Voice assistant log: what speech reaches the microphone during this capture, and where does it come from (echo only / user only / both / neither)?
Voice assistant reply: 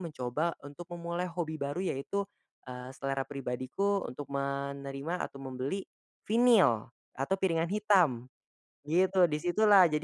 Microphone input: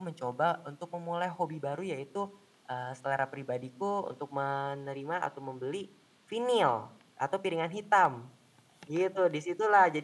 echo only